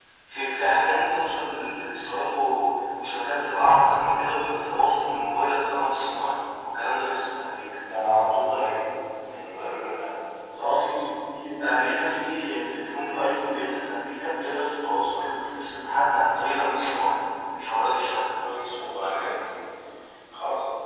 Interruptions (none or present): none